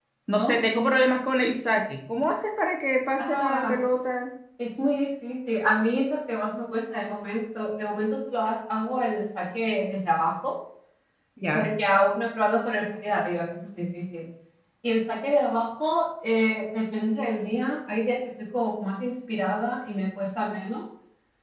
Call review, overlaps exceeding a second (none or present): none